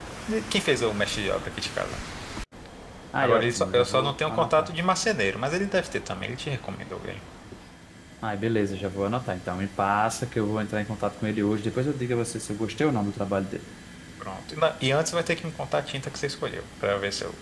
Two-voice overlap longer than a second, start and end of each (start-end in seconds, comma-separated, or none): 3.2-4.7